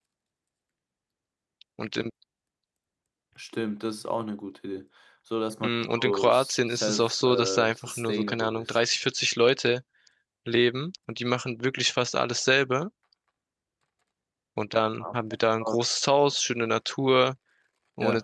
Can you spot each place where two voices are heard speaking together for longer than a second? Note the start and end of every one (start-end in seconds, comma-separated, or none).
5.6-8.7